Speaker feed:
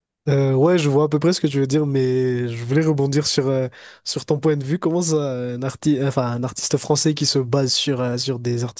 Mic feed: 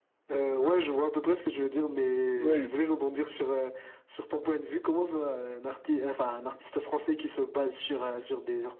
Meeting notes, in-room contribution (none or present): present